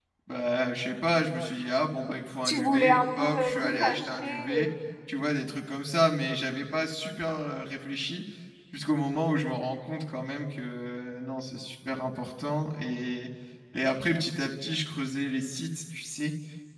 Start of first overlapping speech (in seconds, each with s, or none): 2.4 s